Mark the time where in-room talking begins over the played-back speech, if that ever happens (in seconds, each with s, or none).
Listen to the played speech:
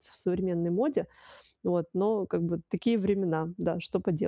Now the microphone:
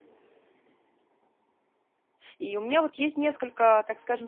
2.4 s